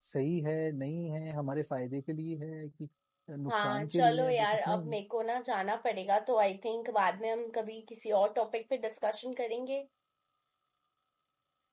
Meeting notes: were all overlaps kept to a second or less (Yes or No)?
No